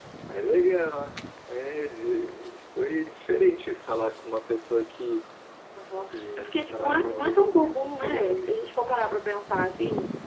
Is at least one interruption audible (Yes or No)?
Yes